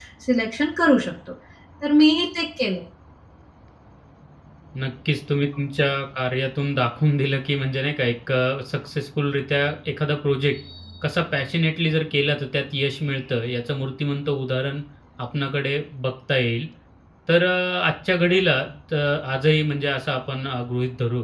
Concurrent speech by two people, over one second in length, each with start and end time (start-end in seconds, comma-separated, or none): none